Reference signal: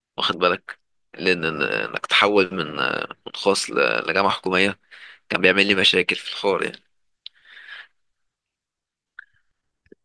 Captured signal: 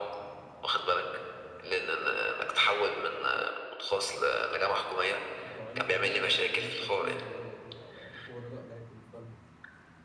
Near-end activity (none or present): present